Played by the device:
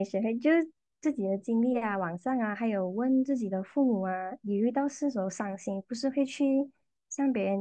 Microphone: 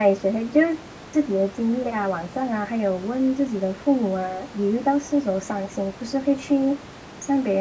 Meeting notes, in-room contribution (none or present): none